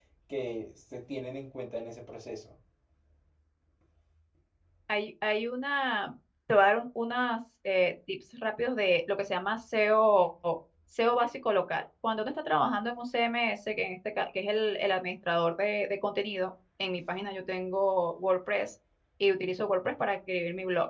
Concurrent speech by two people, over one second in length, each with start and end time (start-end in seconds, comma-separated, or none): none